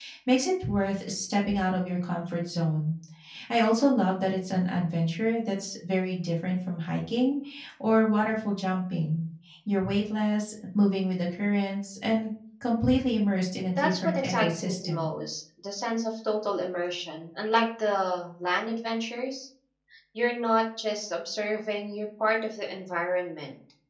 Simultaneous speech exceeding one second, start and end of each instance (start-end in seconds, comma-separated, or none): 13.8-15.1